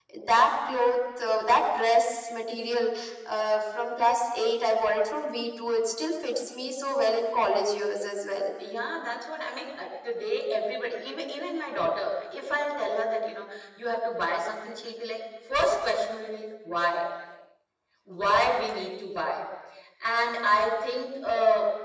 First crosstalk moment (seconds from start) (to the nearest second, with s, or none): none